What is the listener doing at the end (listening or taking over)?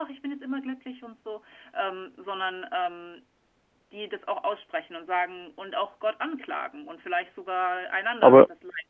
taking over